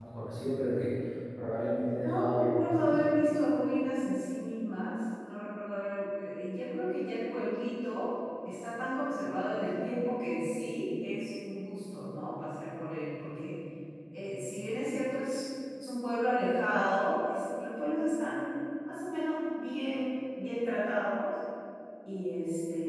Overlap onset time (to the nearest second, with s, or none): 2 s